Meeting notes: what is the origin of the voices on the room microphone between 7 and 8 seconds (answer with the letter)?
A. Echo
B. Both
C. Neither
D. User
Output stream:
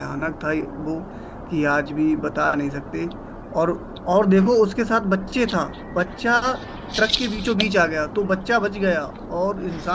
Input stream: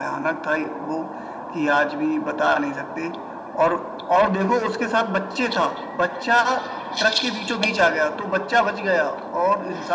A